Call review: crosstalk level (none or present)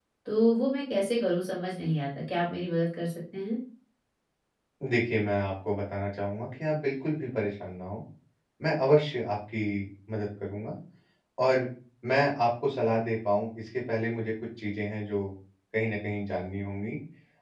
none